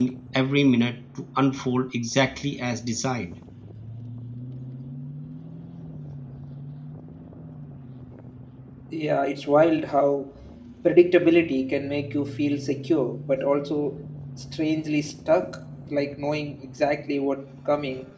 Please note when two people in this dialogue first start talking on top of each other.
none

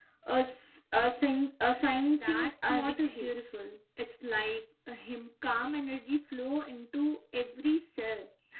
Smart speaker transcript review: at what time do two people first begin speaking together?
2.1 s

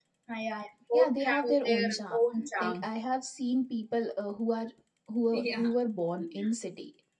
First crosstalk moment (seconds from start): 0.9 s

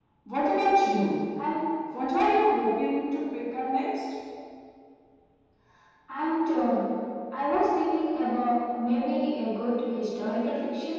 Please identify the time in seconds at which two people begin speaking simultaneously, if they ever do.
none

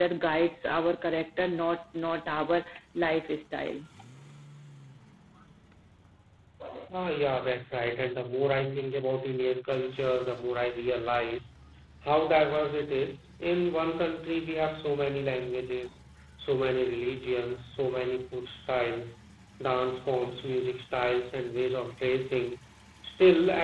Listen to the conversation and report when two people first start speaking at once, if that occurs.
none

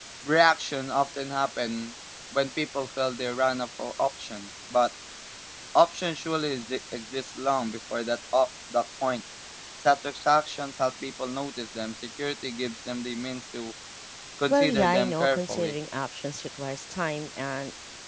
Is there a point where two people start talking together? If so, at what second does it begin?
14.5 s

